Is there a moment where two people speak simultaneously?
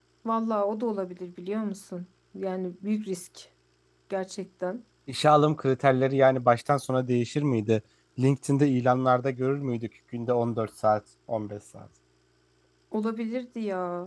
No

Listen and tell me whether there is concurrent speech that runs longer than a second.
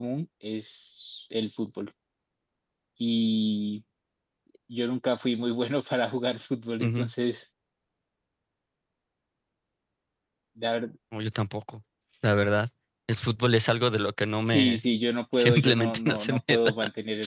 Yes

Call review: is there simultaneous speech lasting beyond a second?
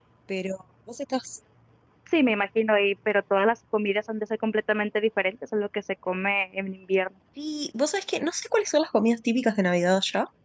No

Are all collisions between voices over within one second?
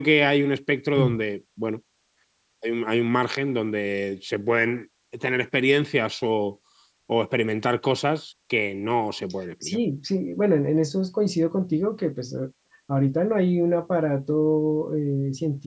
Yes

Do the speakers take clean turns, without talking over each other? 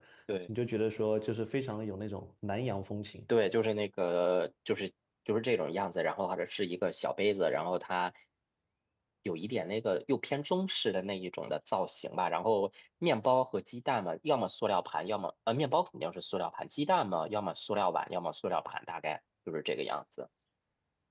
Yes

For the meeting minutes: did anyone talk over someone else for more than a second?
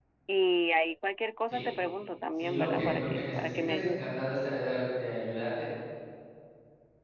Yes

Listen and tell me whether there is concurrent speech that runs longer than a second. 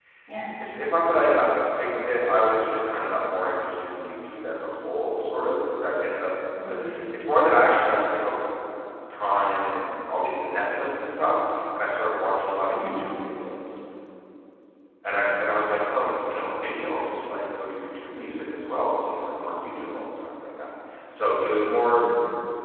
No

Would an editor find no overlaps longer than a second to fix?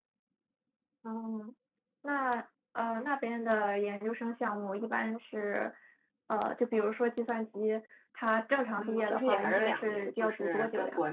No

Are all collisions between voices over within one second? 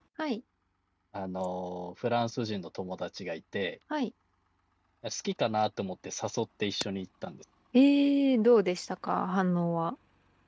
Yes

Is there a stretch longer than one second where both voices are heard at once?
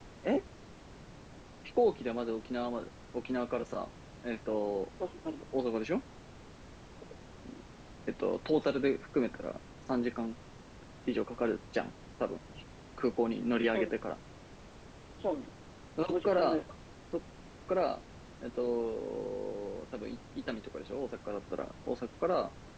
No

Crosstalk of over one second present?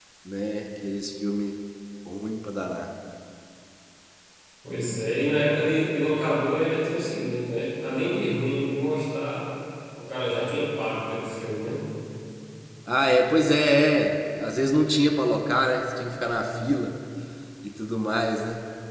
No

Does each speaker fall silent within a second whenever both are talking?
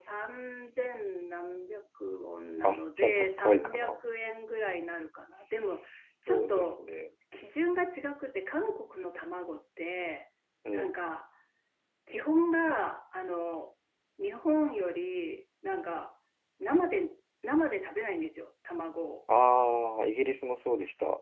No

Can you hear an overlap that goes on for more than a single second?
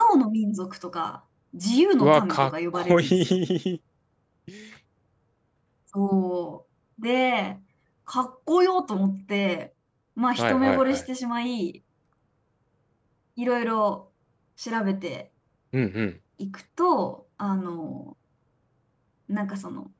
Yes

